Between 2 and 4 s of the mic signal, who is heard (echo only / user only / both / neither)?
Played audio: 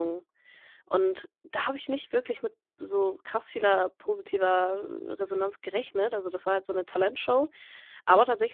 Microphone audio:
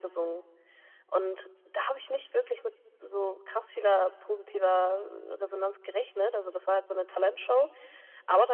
echo only